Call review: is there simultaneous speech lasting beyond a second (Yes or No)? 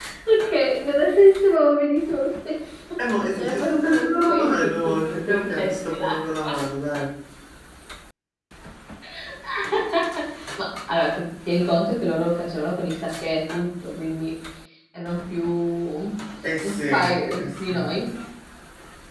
Yes